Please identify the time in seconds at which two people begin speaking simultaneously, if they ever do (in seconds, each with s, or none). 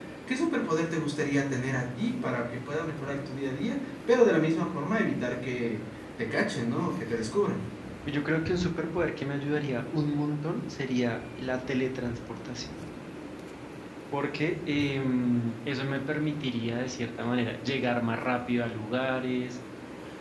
none